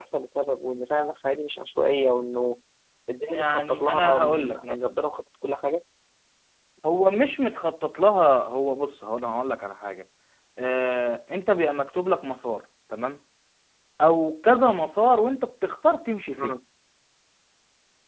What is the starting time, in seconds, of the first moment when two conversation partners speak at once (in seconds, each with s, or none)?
3.3 s